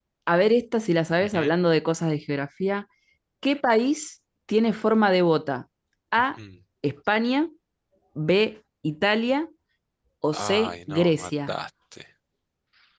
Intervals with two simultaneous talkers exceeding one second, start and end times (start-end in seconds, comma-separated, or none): 10.3-11.5